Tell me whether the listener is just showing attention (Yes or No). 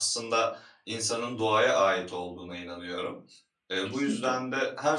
Yes